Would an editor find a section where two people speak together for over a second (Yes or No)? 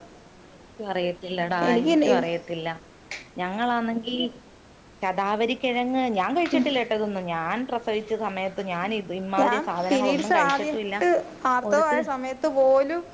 Yes